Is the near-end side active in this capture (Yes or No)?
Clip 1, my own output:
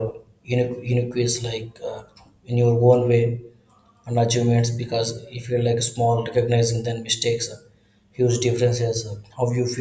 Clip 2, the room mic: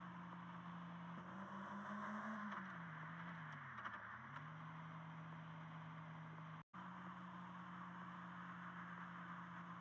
No